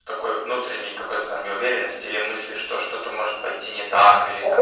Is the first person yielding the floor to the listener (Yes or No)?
Yes